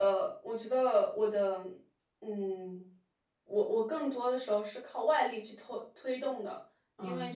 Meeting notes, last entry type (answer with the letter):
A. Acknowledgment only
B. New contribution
A